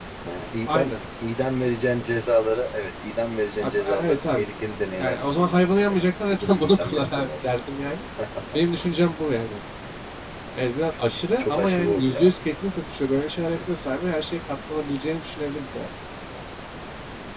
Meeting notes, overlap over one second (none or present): present